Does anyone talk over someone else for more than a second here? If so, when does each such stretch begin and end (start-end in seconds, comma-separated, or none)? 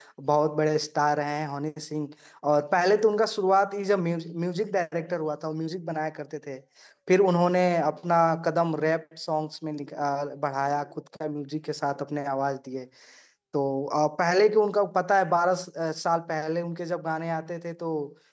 none